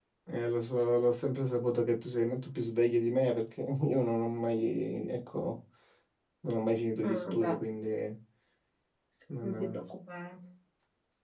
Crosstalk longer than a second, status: none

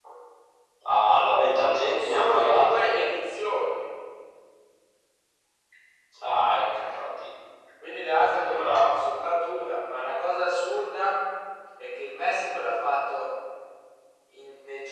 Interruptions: present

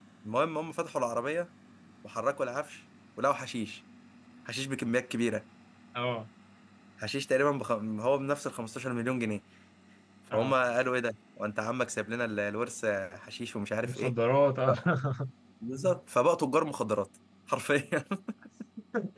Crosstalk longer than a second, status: none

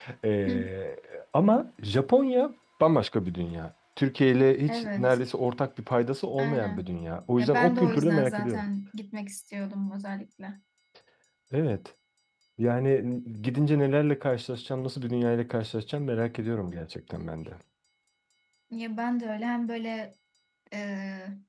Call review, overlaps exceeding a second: present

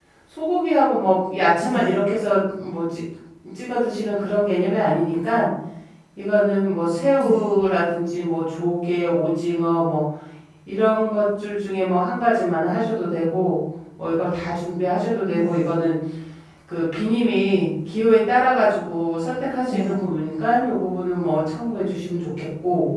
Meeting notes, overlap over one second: none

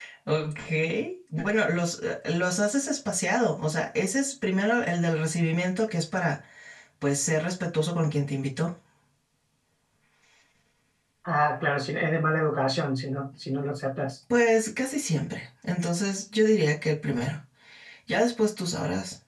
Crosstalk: none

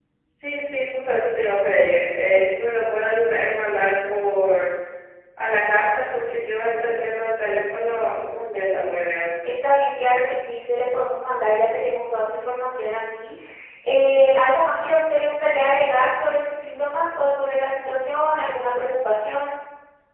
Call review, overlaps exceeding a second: none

